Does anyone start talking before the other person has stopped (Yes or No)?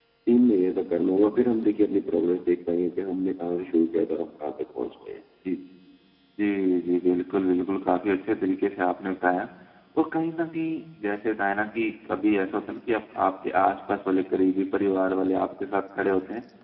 No